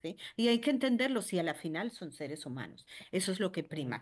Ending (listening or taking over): listening